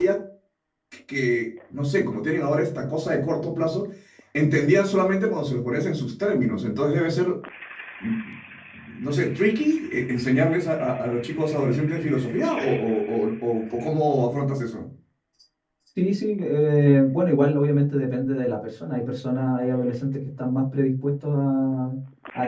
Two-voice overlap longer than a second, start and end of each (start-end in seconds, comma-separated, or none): none